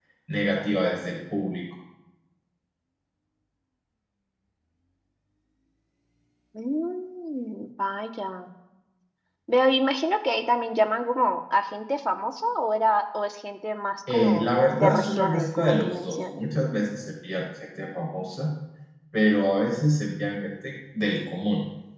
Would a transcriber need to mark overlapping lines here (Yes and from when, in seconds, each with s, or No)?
Yes, from 14.1 s